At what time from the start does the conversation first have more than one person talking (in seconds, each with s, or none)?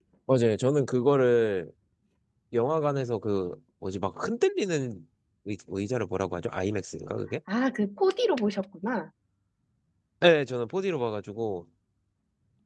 none